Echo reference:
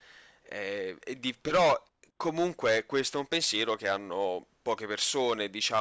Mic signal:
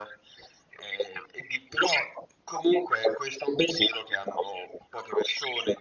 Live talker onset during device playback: none

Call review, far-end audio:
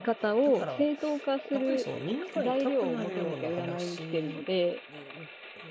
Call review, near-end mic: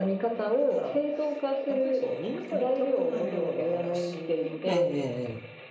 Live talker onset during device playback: 4.7 s

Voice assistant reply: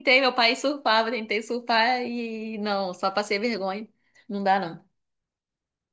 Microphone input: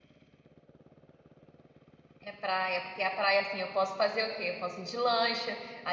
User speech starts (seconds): 2.2 s

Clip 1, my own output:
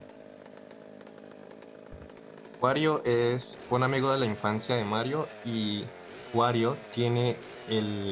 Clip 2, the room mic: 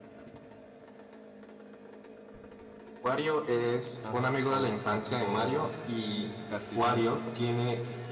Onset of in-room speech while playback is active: 4.0 s

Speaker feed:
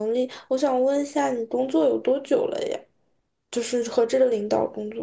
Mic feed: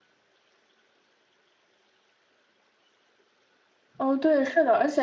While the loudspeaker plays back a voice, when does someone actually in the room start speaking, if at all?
4.0 s

